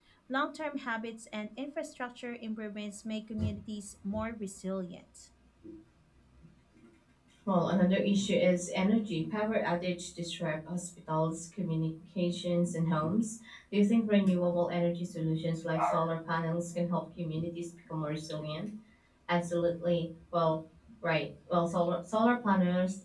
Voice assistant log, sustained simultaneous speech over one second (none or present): none